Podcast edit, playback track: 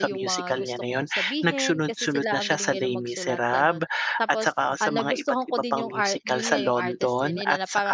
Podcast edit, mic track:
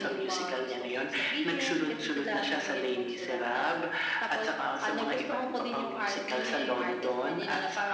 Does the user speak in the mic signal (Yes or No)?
No